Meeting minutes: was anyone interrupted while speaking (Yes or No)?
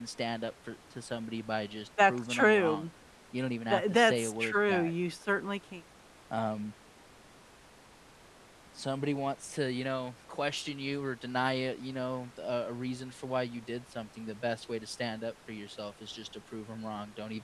Yes